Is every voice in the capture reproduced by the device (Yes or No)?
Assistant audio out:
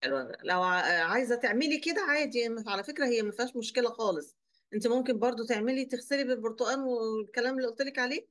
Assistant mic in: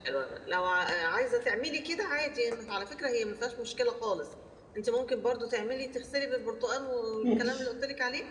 No